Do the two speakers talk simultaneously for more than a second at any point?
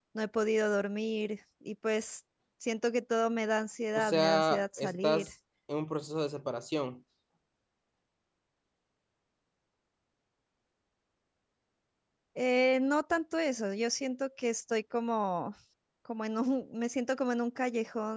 Yes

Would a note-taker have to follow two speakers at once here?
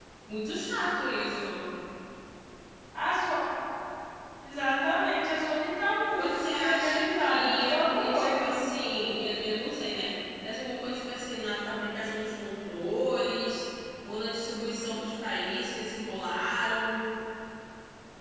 Yes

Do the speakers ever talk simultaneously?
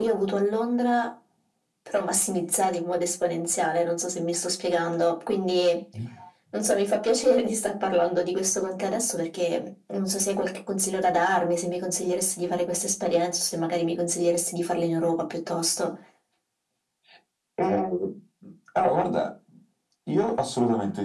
No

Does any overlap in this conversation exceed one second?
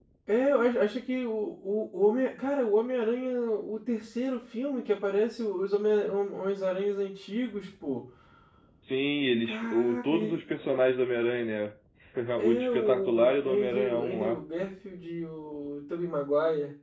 Yes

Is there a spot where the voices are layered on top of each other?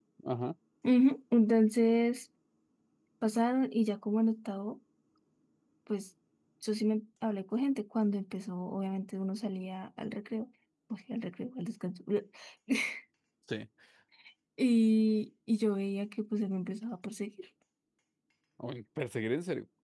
No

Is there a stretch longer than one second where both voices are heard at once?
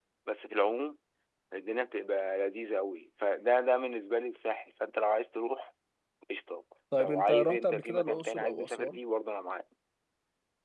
Yes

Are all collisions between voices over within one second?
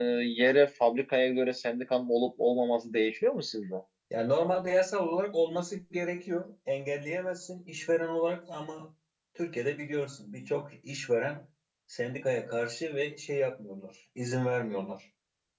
Yes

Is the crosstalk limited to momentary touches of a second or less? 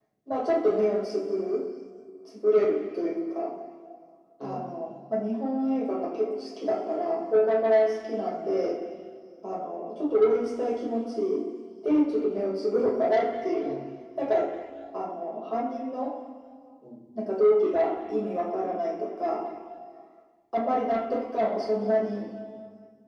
Yes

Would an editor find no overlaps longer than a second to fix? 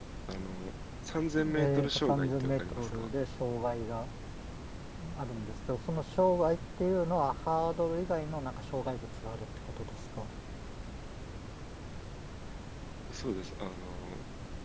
No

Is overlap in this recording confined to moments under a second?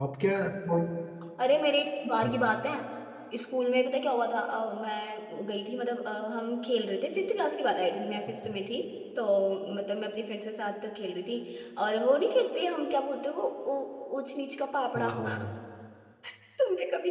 Yes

